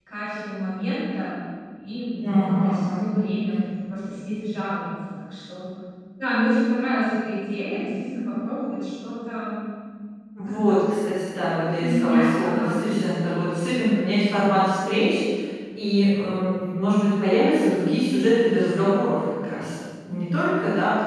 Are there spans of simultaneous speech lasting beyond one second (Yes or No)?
Yes